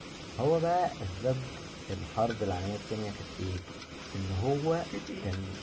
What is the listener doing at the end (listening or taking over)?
listening